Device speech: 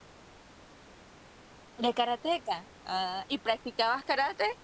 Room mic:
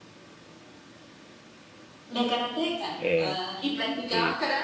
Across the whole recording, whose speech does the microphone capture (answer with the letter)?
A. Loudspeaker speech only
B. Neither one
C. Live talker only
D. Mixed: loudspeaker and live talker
D